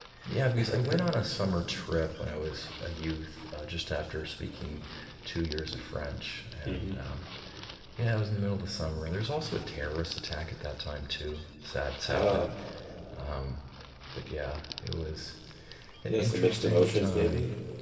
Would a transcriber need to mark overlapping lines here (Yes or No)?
Yes